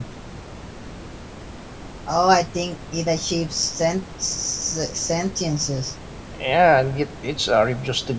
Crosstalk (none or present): none